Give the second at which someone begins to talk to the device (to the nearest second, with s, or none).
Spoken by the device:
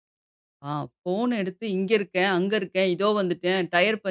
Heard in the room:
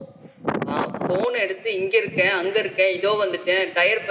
none